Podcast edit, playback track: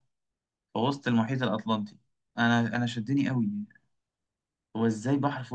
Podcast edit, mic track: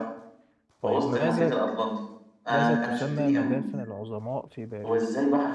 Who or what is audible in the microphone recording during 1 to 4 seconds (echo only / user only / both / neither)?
both